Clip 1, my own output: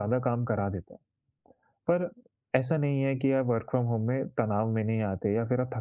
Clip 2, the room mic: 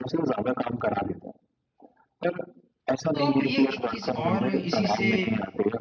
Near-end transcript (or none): तो आप ये एक चीज़ और इसी से